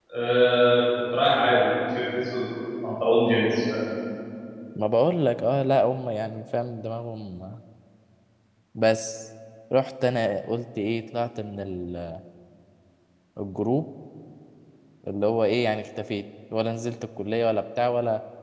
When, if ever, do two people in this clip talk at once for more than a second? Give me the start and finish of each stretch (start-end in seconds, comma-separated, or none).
none